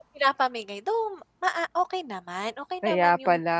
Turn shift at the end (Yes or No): Yes